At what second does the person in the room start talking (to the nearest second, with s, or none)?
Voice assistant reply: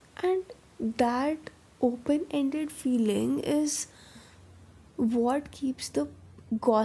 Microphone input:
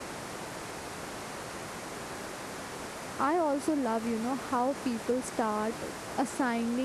3 s